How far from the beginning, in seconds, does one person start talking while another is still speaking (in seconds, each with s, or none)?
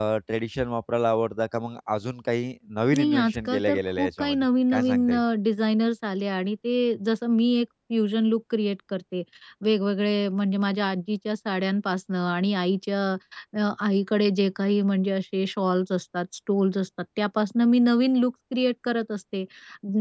2.9 s